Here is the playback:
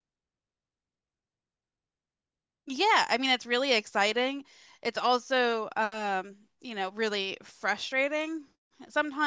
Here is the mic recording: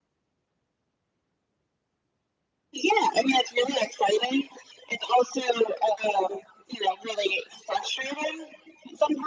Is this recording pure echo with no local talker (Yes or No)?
Yes